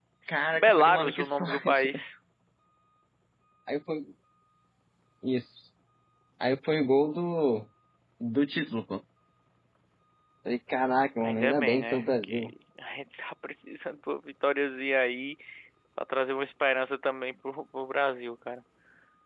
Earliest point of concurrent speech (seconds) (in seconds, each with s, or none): 0.5 s